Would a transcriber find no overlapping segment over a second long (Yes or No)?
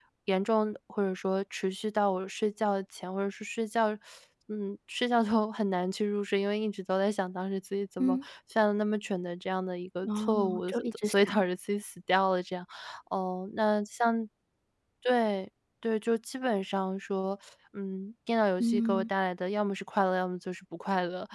No